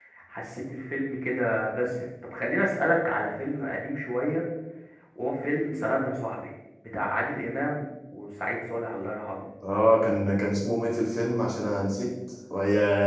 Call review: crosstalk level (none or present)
none